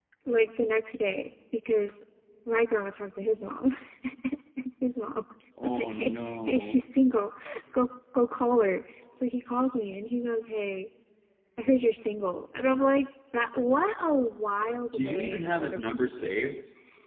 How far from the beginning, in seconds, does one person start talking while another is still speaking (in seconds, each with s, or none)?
5.6 s